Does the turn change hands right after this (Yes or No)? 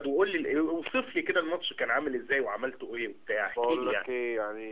Yes